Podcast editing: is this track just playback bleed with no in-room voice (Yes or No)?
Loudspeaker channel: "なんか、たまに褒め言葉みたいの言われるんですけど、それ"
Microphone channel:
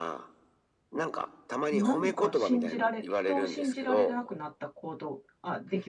No